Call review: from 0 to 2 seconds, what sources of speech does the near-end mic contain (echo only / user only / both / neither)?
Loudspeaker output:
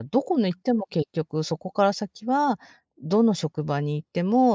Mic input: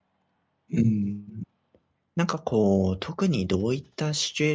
user only